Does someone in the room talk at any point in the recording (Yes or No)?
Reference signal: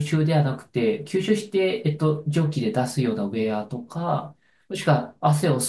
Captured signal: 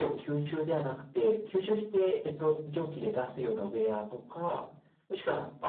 No